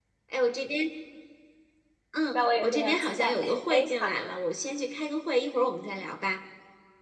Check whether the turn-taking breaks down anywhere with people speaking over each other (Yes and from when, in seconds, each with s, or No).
Yes, from 2.3 s